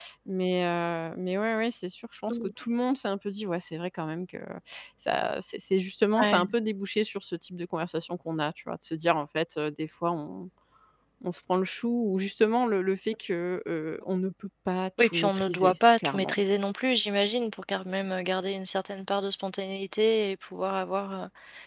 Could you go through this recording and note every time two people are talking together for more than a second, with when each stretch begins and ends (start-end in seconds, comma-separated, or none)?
15.0-16.4